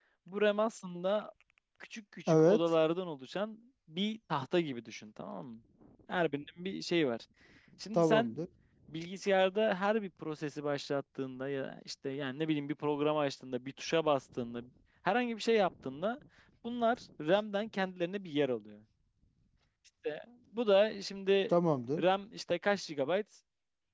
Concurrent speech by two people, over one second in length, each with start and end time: none

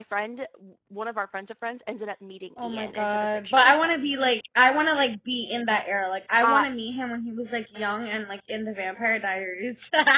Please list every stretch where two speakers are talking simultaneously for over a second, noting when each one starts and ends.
2.6-4.1

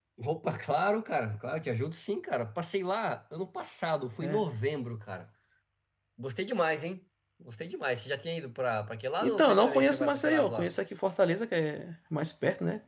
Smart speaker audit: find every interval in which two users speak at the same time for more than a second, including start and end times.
9.2-10.7

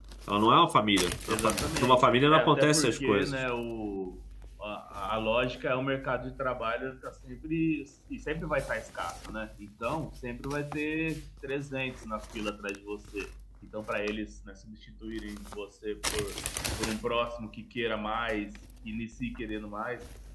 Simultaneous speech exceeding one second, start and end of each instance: 1.3-3.4

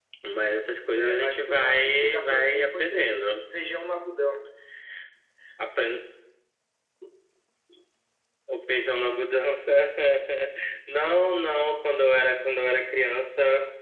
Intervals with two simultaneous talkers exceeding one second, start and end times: 0.9-3.3

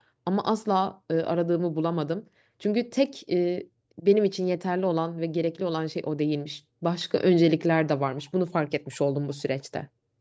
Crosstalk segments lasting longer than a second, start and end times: none

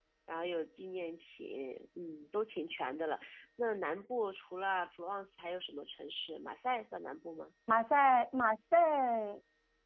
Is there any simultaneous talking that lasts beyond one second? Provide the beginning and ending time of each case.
none

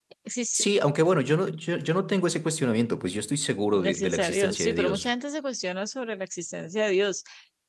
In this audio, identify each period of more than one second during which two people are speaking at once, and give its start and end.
3.7-5.1

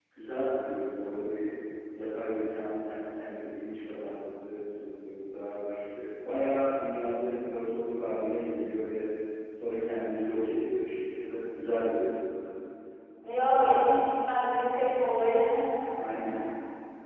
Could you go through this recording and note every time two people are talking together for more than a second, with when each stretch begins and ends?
none

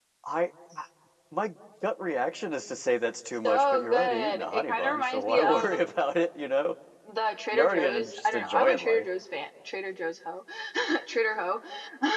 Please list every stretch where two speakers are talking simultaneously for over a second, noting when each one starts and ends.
3.4-5.8, 7.5-9.0

